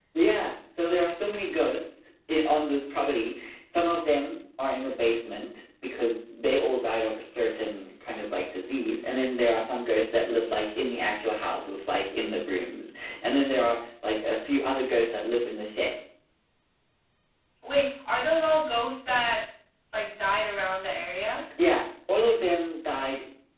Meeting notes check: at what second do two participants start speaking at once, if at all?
none

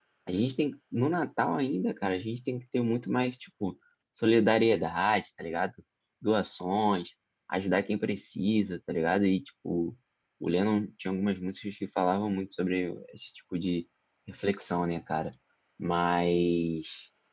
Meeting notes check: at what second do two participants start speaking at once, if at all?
none

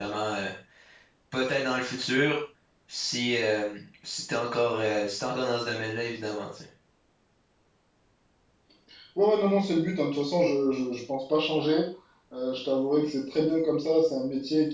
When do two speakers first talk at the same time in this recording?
none

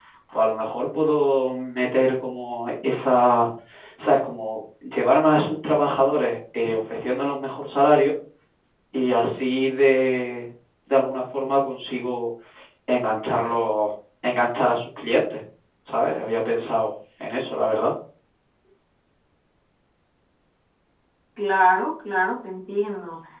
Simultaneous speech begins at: none

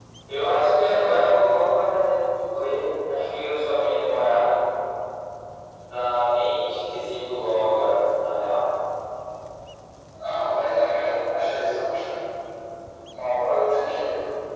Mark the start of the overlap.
none

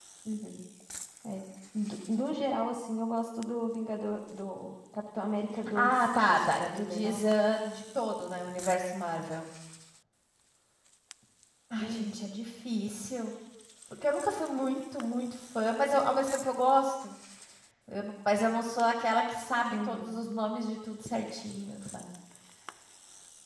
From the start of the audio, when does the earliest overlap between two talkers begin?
6 s

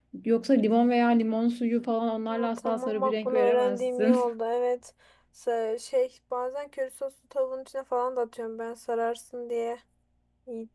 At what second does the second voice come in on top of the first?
2 s

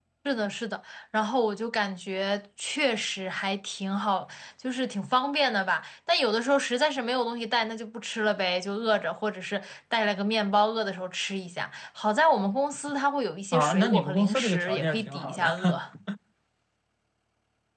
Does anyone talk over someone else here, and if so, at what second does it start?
14 s

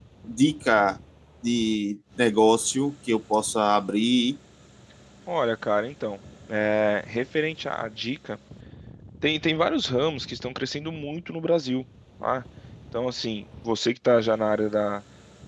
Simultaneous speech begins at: none

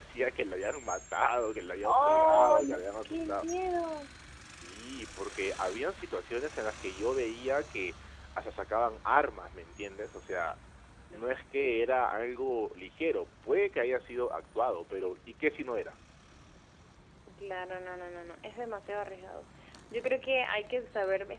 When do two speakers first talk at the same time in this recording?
2 s

